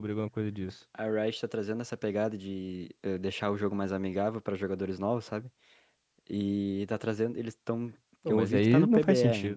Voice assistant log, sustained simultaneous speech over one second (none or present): present